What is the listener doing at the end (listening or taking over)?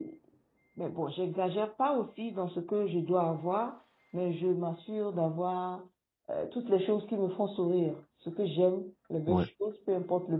listening